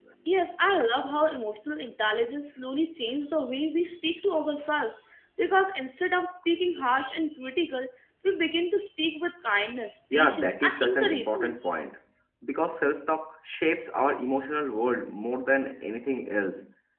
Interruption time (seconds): 10 s

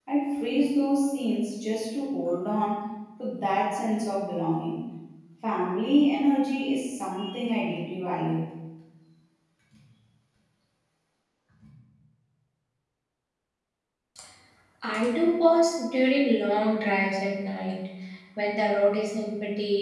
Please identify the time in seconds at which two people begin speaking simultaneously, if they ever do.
none

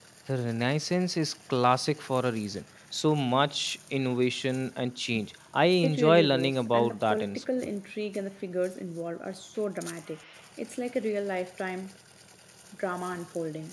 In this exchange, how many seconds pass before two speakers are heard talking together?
6 s

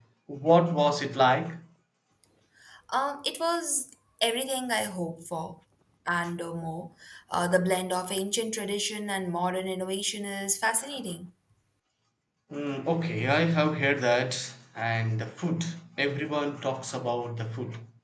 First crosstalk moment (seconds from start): none

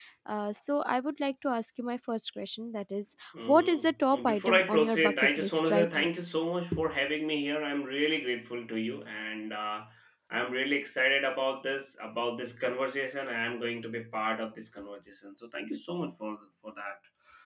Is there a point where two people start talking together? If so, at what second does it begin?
3 s

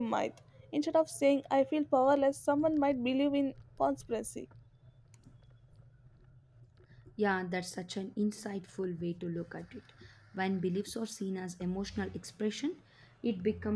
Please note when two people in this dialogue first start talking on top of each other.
none

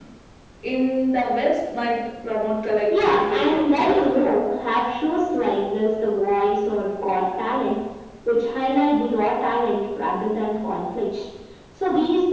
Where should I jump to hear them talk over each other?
3 s

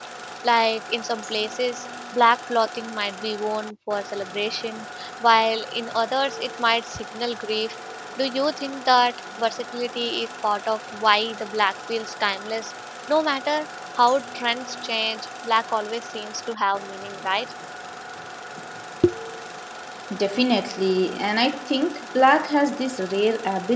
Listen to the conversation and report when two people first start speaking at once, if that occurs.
none

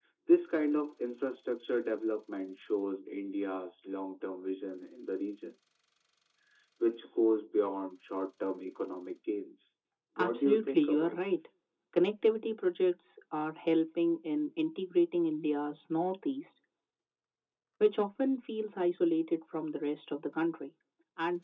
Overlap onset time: 10 s

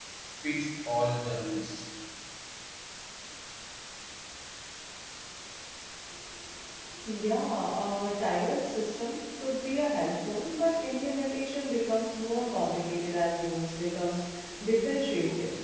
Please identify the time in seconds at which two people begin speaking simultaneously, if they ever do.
none

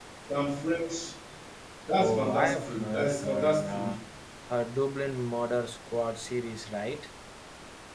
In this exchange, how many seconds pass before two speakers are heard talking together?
2 s

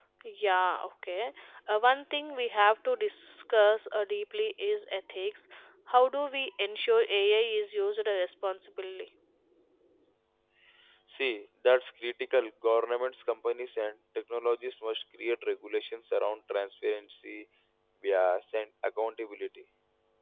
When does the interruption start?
none

